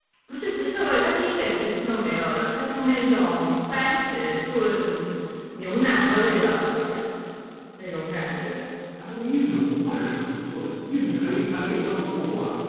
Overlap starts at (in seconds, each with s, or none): none